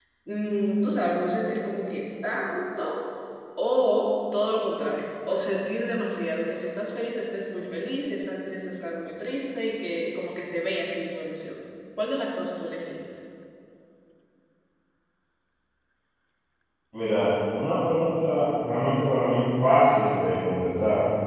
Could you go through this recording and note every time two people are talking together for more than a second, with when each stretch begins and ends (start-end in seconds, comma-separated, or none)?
none